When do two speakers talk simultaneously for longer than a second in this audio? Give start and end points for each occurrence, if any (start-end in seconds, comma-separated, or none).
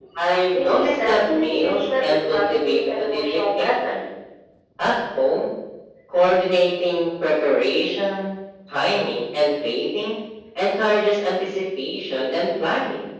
0.5-4.1